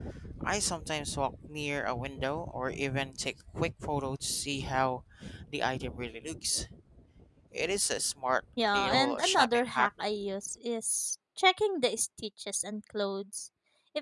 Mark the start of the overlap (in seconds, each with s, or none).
8.6 s